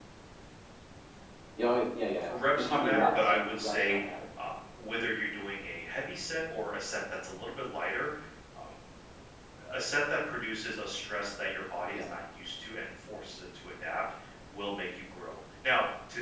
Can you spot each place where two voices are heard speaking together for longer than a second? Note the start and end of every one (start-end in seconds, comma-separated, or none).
2.3-4.2